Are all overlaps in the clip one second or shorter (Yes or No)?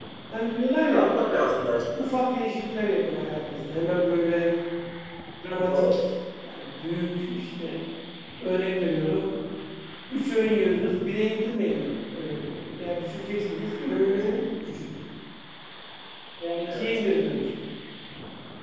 Yes